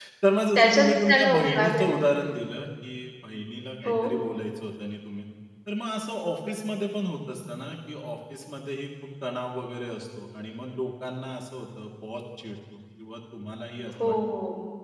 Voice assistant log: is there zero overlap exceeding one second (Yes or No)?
No